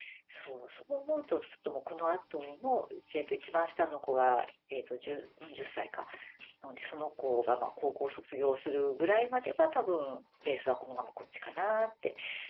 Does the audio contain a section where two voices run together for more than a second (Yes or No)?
No